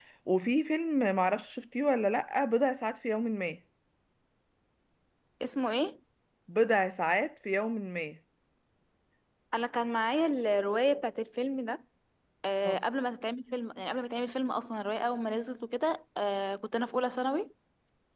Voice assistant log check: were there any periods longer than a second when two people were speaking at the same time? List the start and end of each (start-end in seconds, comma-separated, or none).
none